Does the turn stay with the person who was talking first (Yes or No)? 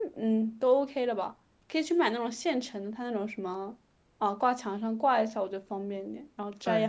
No